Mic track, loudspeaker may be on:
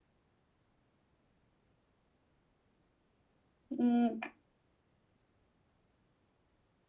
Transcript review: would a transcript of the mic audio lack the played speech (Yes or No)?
Yes